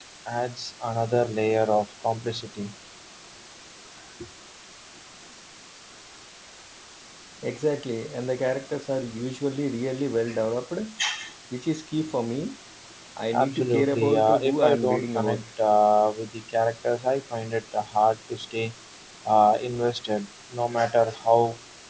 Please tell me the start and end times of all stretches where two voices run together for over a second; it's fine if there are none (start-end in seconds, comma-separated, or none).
13.3-15.4